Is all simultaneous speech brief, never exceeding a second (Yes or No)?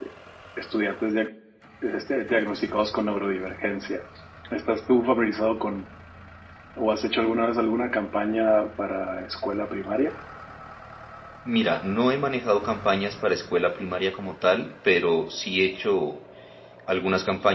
Yes